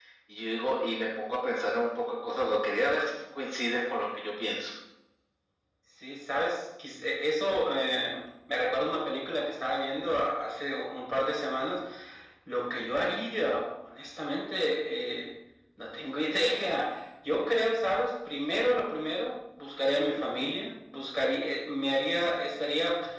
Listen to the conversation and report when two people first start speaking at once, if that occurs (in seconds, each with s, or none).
none